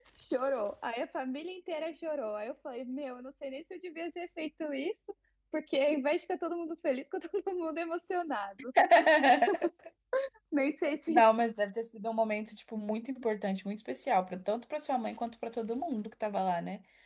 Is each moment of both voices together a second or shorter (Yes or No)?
Yes